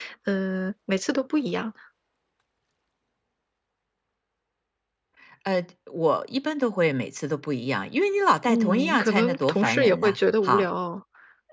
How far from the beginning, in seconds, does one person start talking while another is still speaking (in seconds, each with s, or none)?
8.5 s